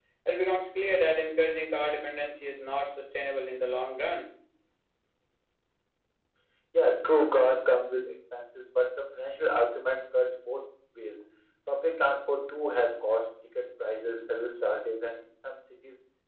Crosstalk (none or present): none